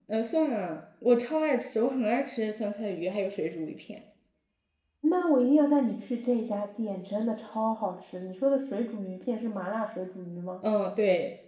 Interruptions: none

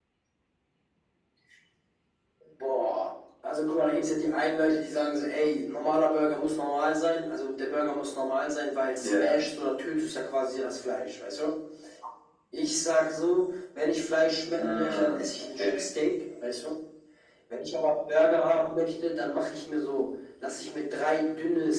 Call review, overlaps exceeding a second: present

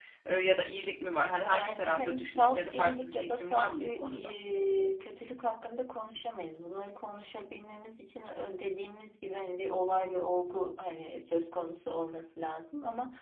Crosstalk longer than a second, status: present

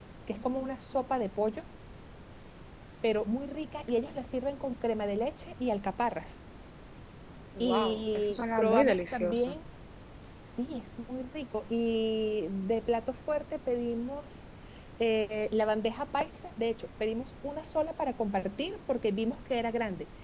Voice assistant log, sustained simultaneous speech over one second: present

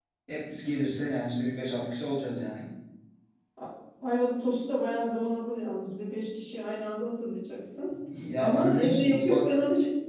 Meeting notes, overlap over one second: present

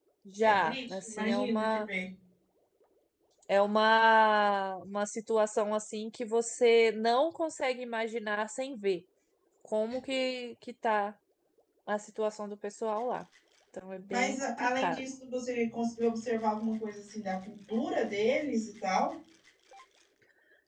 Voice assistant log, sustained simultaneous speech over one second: present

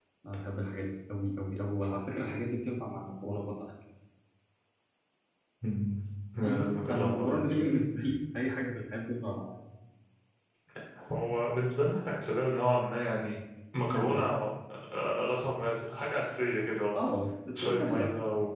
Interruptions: present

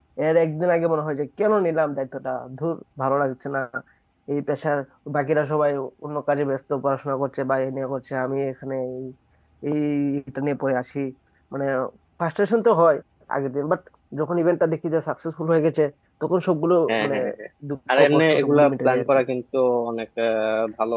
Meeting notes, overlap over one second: present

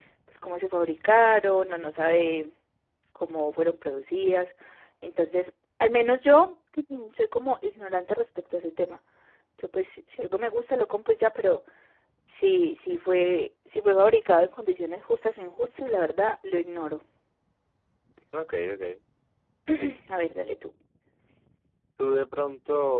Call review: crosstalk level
none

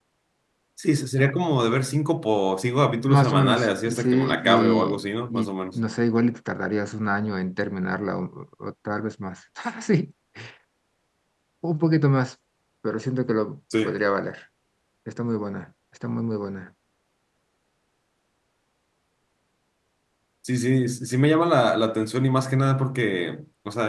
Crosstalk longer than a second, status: present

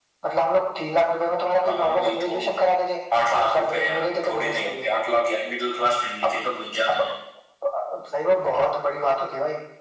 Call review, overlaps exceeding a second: present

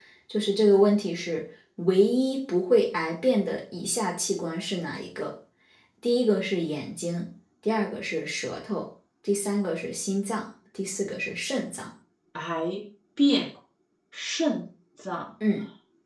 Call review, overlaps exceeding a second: none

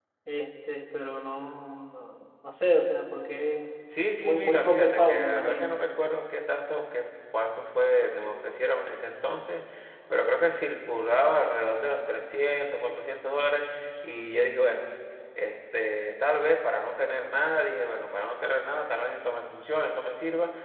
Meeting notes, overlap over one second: present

